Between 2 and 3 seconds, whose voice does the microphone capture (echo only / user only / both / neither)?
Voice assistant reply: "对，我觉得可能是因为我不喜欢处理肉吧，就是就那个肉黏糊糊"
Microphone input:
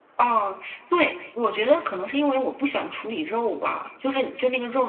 echo only